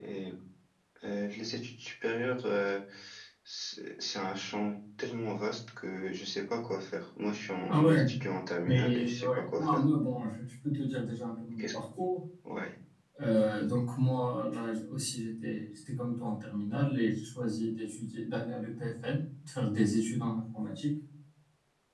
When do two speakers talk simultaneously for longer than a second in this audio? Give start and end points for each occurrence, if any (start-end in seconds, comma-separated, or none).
8.6-9.8